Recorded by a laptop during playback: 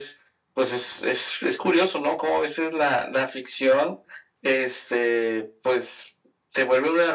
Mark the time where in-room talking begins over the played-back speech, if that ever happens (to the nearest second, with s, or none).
none